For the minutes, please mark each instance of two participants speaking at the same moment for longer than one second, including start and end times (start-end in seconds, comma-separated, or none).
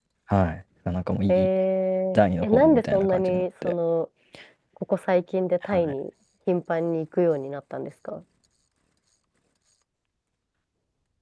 2.2-3.7